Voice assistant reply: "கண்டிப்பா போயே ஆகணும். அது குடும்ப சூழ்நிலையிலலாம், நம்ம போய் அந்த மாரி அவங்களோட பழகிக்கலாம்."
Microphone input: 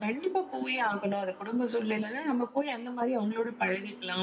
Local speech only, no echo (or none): none